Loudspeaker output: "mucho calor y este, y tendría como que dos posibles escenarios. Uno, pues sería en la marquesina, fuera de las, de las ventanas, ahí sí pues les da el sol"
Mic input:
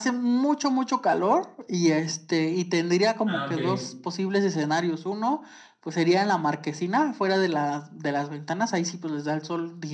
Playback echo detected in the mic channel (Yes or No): Yes